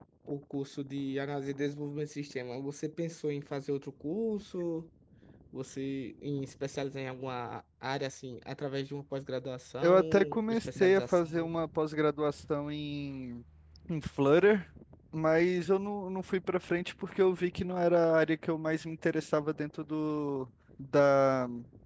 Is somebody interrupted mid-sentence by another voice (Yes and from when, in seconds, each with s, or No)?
Yes, from 9.8 s